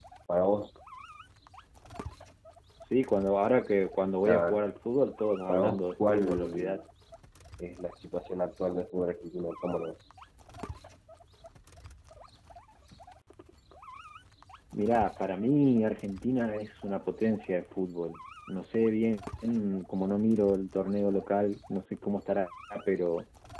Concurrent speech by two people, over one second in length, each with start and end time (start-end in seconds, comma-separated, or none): 5.5-6.8